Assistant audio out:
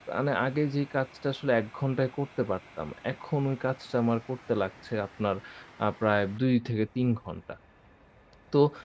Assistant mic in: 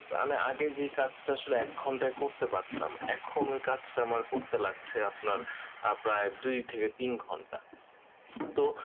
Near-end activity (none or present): none